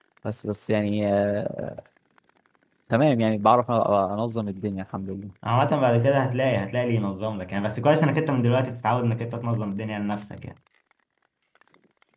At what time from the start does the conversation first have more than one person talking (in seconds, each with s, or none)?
none